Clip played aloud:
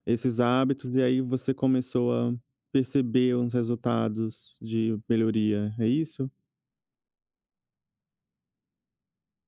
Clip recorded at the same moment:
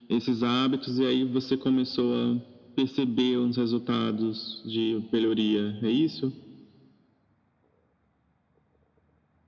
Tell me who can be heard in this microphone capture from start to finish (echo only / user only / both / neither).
echo only